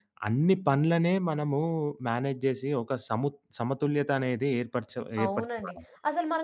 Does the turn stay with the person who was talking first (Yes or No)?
No